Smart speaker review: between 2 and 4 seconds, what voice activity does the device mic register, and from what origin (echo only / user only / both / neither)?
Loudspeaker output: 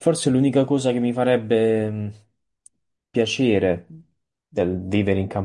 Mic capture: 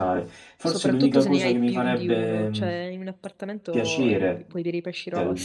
both